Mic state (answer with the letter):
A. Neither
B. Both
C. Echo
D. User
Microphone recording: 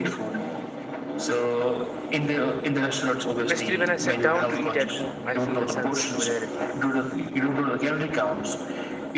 B